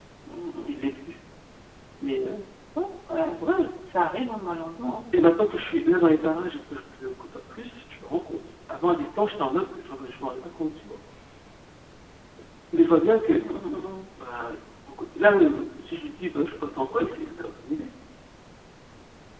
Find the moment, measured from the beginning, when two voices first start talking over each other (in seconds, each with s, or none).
none